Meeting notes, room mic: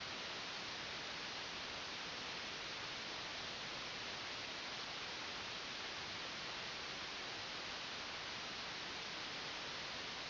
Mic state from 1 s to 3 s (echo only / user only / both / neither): neither